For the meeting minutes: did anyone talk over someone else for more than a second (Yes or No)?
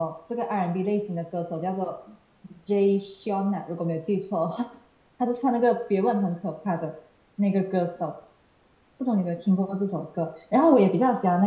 No